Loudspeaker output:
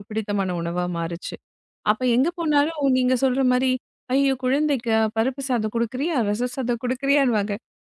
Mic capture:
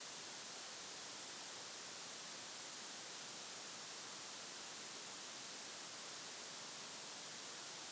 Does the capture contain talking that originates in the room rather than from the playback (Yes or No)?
No